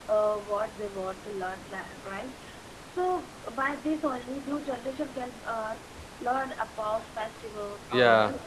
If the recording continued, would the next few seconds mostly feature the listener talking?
No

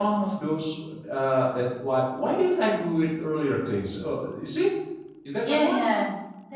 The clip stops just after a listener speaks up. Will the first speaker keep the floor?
No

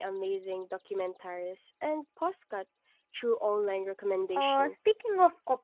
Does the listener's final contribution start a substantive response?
Yes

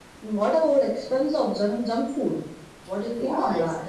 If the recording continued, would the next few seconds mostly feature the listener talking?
Yes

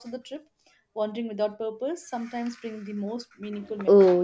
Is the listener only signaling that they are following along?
No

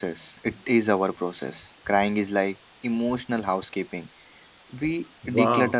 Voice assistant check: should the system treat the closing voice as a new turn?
Yes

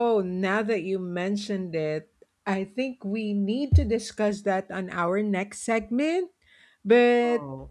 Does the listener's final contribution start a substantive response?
No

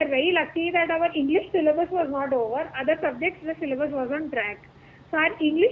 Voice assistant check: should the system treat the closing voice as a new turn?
No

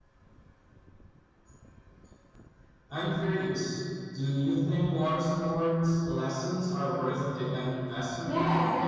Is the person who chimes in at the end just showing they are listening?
No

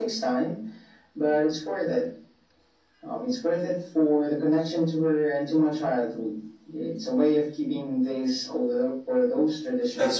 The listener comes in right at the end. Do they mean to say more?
Yes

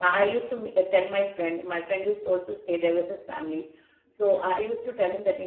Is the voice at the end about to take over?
No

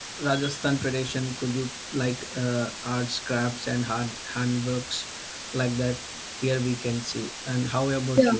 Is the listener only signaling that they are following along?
No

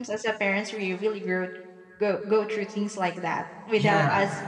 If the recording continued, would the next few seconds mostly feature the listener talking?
No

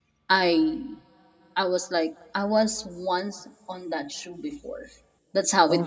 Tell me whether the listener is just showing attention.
Yes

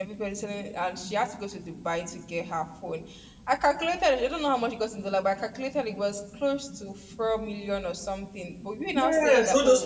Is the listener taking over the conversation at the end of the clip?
Yes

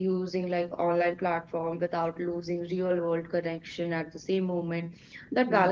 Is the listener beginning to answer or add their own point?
No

